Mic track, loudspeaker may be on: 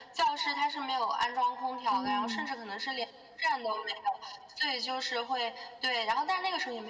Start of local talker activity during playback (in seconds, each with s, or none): 1.9 s